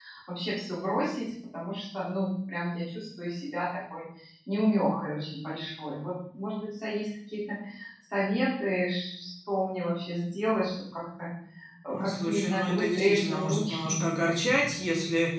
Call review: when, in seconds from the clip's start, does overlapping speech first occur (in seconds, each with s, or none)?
11.9 s